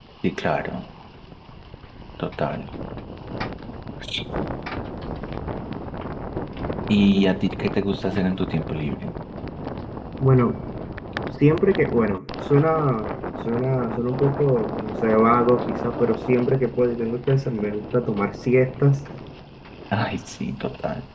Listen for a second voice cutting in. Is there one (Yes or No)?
No